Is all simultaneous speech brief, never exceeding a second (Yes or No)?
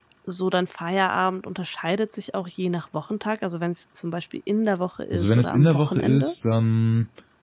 No